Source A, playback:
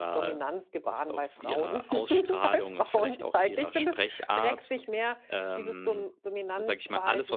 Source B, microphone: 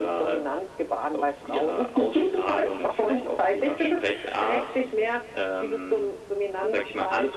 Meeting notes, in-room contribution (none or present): none